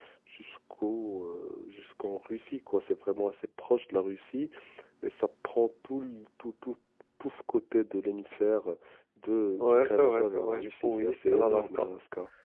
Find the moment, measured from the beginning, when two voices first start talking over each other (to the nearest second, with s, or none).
10 s